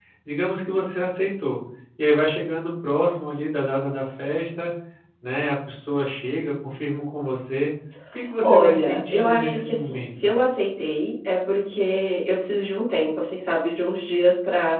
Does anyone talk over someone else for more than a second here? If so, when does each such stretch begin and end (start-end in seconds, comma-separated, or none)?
8.4-10.3